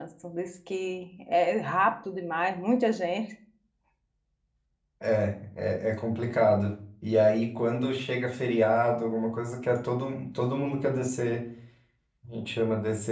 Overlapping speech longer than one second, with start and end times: none

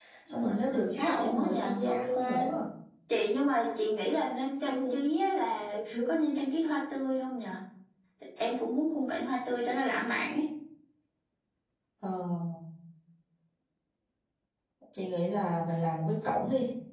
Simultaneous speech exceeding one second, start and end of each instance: 1.0-2.2

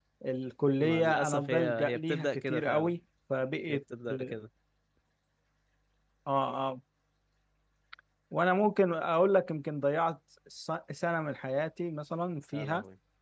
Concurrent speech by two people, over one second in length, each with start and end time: 0.8-2.9

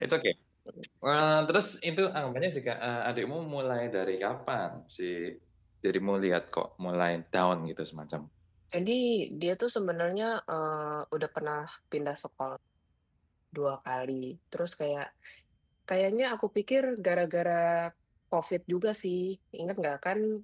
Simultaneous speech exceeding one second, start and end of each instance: none

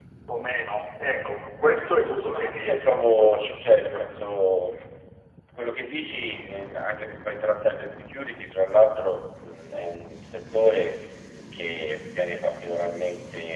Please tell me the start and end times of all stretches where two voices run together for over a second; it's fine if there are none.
2.3-4.0

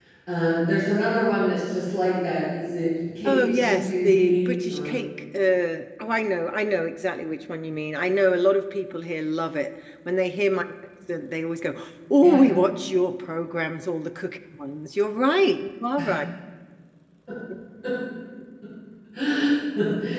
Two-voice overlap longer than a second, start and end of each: 3.3-4.9

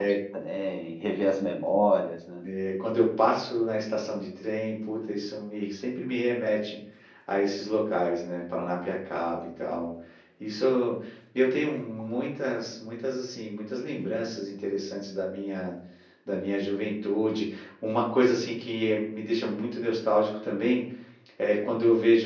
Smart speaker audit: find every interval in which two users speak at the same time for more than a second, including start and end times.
none

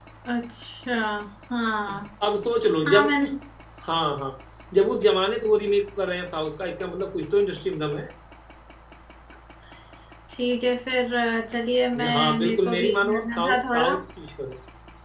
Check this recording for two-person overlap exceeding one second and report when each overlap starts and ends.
12.0-14.0

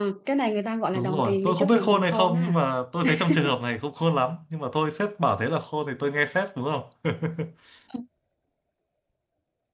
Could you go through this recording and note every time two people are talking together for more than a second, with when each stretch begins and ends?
0.9-2.6

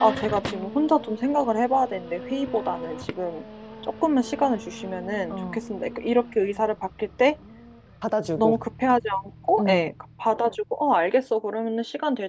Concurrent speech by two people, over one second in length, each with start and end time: none

